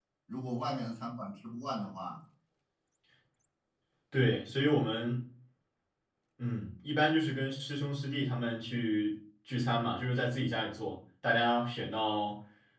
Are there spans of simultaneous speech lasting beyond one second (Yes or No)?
No